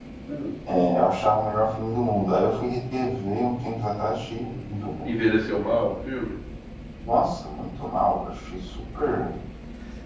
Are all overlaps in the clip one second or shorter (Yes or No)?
Yes